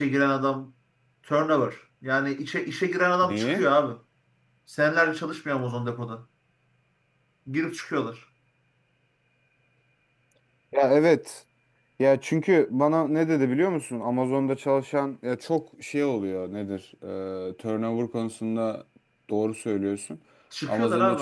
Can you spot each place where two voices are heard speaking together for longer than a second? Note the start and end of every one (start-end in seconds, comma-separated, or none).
none